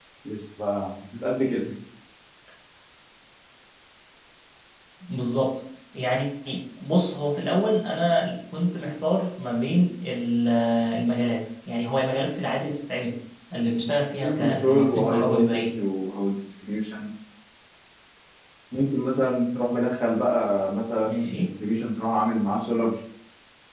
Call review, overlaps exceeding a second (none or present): present